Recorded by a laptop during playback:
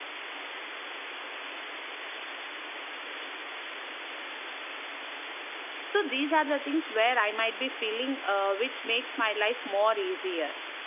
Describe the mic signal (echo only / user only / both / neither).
user only